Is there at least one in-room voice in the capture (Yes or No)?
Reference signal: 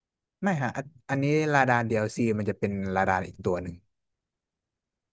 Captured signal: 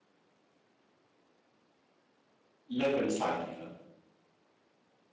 Yes